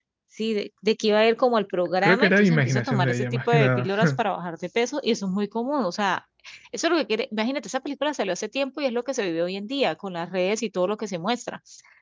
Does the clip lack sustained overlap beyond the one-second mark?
No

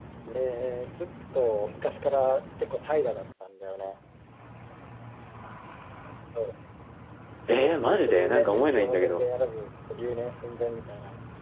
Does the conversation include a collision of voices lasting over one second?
Yes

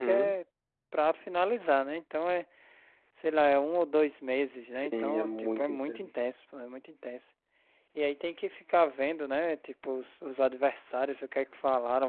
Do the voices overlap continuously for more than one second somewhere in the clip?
Yes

